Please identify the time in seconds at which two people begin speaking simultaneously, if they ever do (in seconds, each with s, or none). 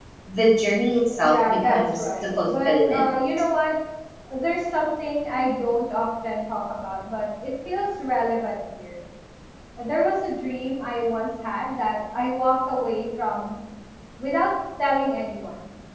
1.2 s